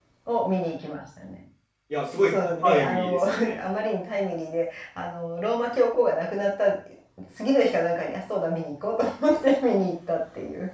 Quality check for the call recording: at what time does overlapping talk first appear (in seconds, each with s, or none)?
2.3 s